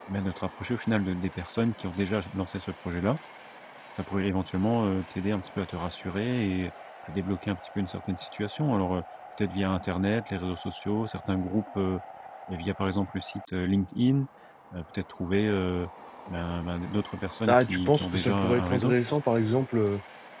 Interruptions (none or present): present